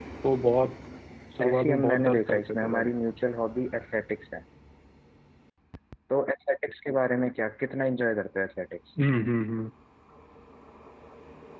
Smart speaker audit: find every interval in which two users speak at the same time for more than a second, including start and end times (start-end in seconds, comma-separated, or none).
1.4-2.9